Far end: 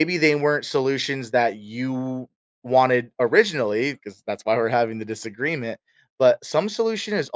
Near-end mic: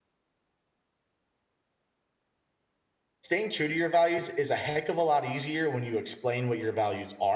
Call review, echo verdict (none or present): none